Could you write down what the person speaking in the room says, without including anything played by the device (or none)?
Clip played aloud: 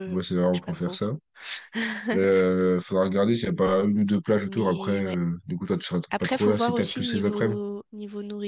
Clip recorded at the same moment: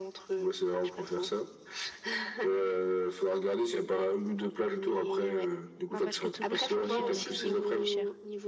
Non, parce que Toulouse, son billet aurait été beaucoup plus cher.